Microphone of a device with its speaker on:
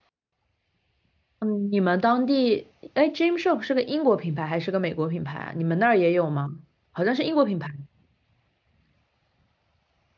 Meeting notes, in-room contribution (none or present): present